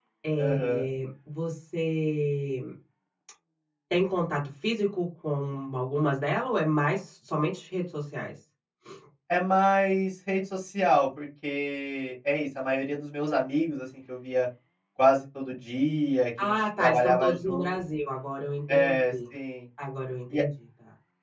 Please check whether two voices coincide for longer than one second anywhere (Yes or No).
Yes